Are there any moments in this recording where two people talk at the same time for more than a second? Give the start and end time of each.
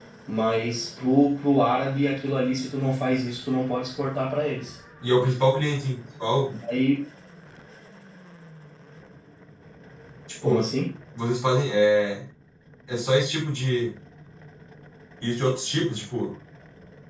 none

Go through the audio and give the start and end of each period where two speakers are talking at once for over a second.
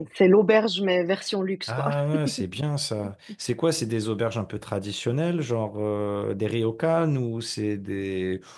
none

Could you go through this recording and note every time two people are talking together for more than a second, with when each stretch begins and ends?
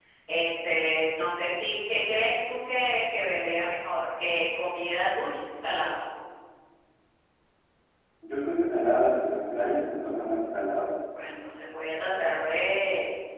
none

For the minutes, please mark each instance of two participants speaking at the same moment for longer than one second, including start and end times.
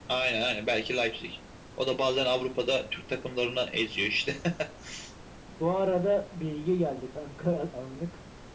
none

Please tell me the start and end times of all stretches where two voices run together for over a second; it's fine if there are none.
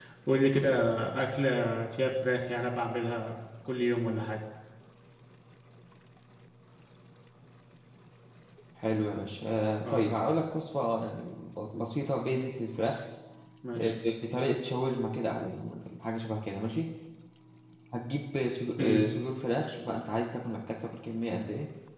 none

